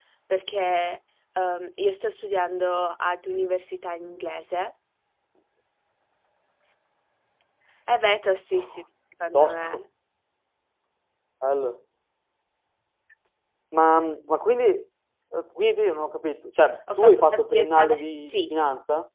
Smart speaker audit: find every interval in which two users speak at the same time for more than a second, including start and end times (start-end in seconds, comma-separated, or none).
17.0-18.5